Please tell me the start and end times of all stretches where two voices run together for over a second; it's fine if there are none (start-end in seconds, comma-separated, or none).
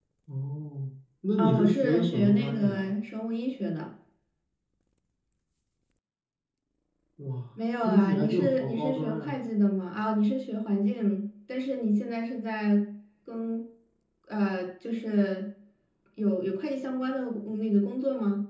1.4-2.9, 7.8-9.4